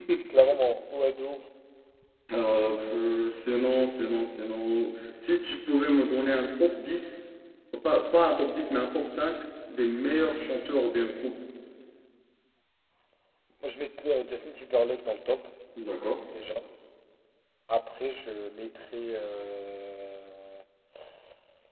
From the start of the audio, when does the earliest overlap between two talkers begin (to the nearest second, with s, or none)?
none